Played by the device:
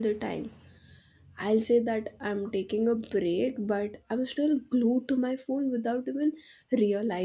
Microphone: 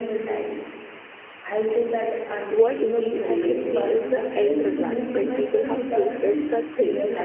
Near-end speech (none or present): present